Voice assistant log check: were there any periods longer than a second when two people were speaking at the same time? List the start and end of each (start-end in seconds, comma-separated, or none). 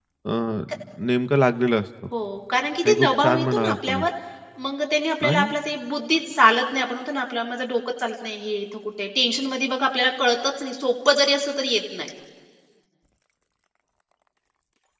2.8-4.1